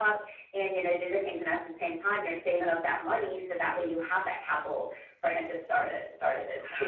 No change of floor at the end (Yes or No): No